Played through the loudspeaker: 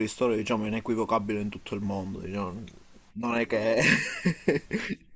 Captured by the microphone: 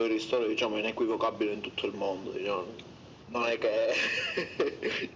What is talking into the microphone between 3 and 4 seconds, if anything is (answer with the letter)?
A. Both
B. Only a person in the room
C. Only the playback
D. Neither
C